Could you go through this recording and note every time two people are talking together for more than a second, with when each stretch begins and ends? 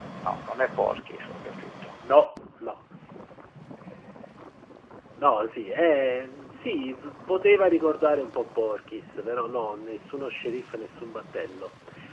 none

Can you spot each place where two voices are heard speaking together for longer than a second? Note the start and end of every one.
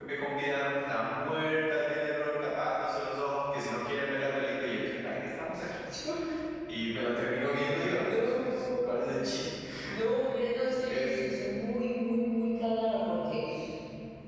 8.0-9.2

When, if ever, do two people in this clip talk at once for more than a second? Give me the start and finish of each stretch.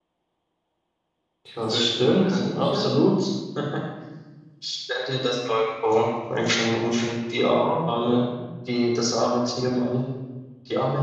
1.6-2.9

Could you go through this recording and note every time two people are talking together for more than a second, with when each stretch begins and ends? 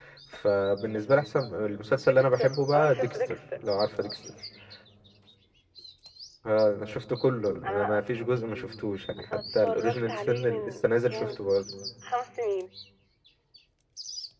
2.1-3.4, 9.3-11.4

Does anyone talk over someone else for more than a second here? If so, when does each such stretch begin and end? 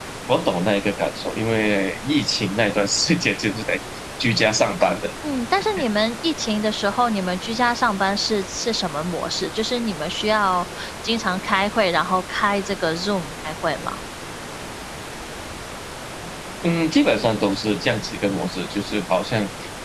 none

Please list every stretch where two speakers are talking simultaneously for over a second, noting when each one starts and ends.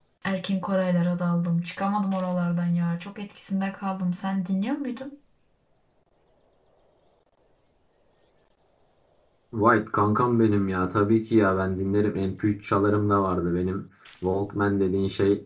none

